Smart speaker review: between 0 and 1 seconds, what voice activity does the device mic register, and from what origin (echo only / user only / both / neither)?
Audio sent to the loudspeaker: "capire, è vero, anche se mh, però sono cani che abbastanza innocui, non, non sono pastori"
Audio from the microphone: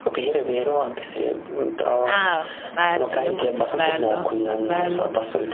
echo only